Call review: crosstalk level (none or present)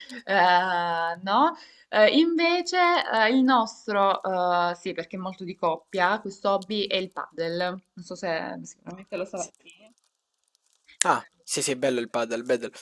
none